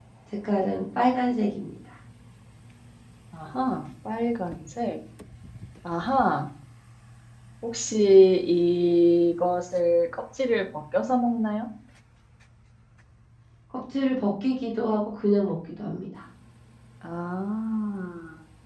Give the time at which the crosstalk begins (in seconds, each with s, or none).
none